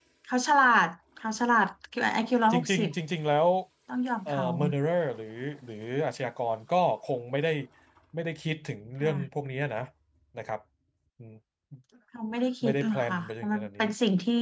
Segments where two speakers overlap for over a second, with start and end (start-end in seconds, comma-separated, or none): 12.6-13.8